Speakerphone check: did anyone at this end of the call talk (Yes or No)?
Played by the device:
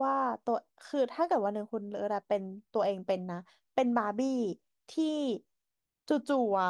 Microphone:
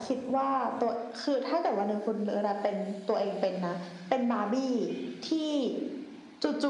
No